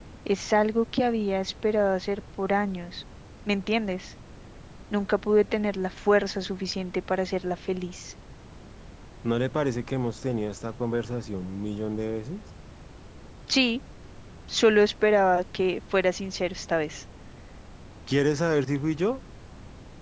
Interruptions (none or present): none